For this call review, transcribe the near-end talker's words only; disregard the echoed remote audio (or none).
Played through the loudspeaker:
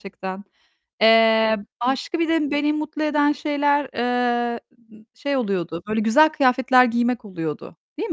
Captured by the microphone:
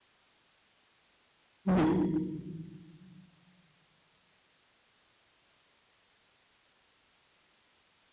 hı.